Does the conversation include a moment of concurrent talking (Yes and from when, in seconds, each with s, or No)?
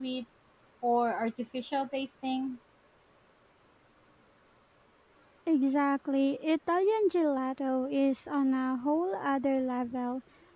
No